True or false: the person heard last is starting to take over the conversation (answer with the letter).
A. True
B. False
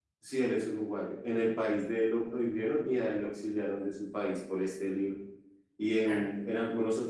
B